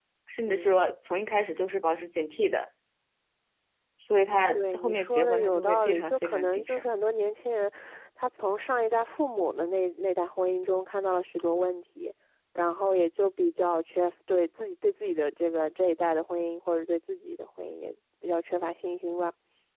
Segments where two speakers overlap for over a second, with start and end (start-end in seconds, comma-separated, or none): 4.5-6.8